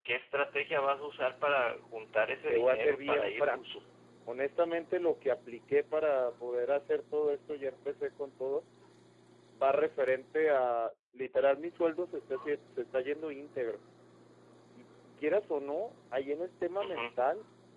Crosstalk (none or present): present